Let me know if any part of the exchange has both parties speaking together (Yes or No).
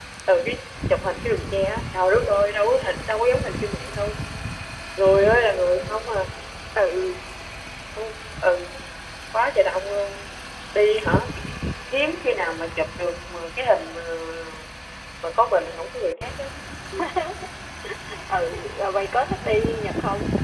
No